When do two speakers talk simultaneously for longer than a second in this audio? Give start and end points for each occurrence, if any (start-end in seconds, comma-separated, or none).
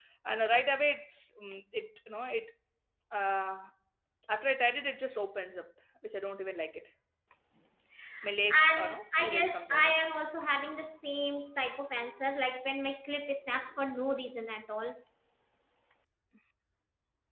8.7-9.9